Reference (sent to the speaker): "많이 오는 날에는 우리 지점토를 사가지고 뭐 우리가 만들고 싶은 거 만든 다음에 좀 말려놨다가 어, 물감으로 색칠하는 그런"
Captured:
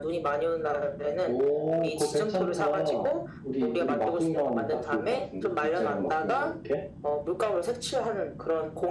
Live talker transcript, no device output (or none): 오, 그거 괜찮다. 우리, 우리 막둥이랑 오면 딱 좋을 것 같은데? 둘째랑 막둥이랑 이렇게?